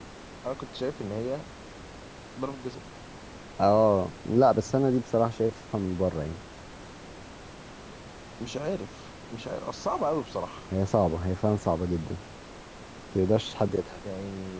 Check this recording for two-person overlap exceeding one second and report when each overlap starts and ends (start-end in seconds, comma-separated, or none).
none